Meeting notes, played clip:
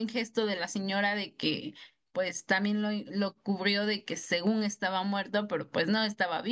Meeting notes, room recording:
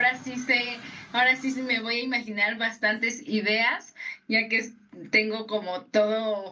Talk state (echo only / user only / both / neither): user only